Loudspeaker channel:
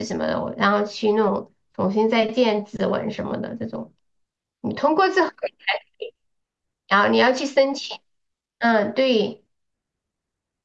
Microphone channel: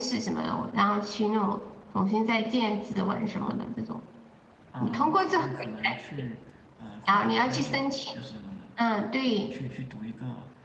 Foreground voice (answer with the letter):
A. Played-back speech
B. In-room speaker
A